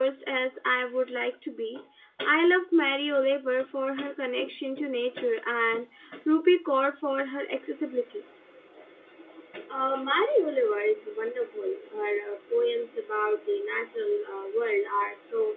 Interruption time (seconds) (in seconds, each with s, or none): none